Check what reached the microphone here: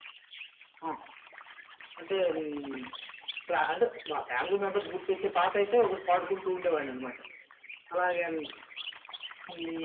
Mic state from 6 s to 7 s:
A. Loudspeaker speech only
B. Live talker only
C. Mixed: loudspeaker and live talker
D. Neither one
A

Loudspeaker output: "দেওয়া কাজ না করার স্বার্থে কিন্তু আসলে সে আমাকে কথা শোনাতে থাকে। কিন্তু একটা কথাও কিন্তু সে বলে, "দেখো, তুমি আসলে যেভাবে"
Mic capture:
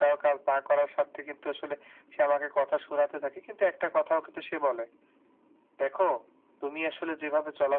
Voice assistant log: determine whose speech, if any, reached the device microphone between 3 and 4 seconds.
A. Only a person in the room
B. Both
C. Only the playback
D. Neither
C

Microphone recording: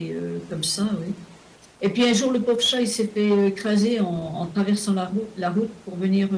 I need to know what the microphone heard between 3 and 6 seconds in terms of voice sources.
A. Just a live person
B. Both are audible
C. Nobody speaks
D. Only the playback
D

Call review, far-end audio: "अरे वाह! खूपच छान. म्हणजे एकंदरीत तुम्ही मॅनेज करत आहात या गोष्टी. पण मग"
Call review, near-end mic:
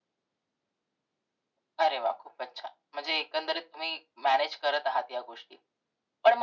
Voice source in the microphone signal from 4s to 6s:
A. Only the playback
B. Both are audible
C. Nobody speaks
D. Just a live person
A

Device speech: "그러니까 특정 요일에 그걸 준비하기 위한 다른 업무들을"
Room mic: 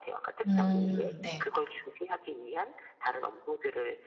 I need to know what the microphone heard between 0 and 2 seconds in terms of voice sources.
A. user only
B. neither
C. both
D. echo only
C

